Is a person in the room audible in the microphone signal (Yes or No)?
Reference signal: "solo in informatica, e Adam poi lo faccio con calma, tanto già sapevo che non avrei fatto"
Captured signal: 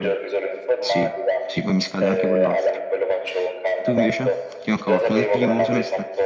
Yes